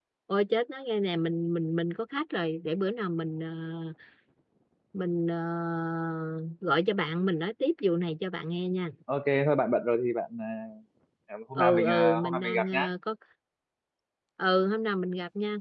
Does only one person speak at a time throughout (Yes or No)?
No